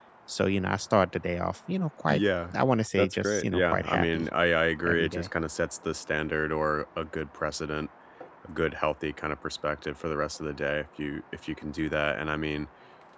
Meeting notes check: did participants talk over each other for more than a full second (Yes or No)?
Yes